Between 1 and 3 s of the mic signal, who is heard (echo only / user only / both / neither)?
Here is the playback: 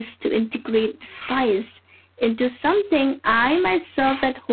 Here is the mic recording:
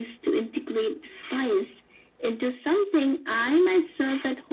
echo only